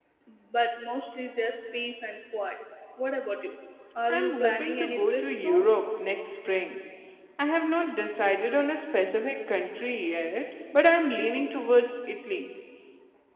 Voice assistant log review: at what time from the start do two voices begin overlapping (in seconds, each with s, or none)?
4.1 s